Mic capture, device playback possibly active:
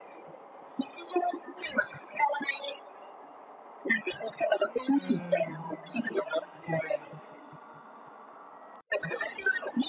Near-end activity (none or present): present